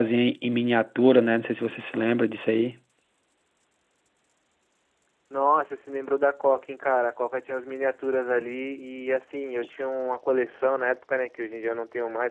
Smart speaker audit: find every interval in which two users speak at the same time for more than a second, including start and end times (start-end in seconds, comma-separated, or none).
none